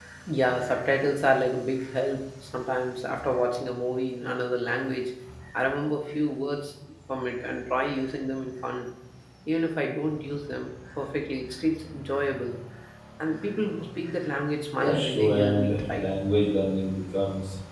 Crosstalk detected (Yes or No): Yes